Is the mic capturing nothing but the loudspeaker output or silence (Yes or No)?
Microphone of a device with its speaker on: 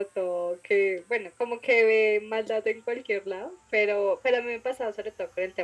Yes